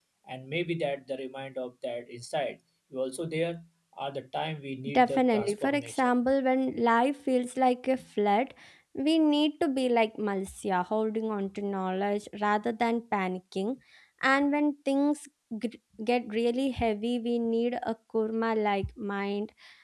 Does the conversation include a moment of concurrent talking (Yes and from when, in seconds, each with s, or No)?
Yes, from 4.8 s